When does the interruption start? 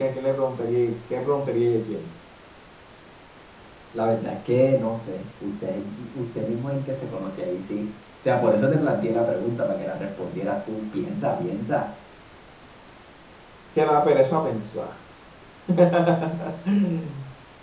none

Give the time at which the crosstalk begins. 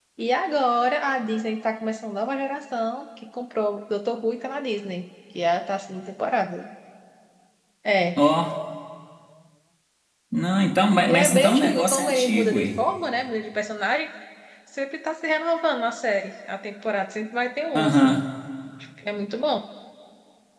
11 s

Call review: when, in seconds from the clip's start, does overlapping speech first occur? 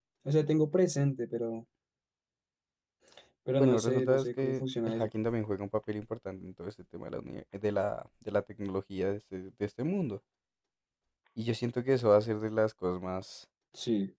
4 s

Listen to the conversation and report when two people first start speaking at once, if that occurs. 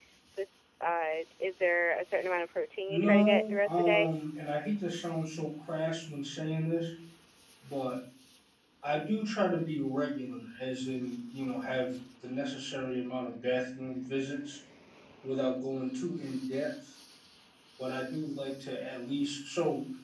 3 s

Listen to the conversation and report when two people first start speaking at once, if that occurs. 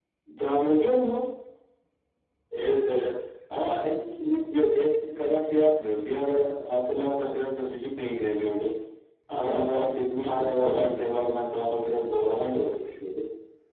9 s

